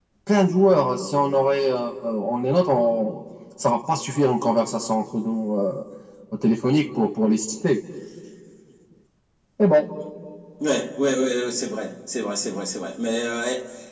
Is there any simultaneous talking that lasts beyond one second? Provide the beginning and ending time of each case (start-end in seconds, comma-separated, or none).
none